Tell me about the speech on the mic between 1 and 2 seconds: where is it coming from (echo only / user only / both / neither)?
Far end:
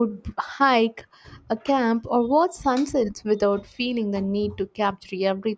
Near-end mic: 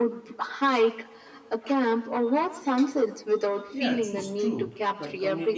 echo only